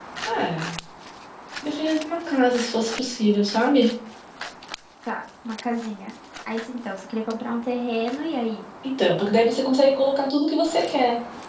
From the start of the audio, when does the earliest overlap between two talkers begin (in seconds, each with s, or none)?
none